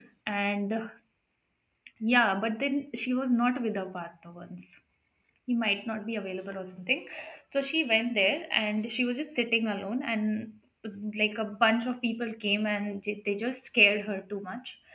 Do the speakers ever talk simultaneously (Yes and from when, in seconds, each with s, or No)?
No